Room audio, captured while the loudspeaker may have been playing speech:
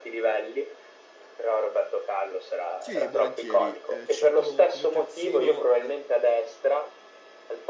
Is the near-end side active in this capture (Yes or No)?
Yes